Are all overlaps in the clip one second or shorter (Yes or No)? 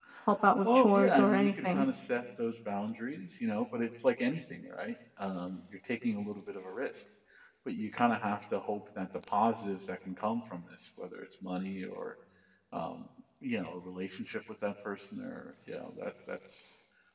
No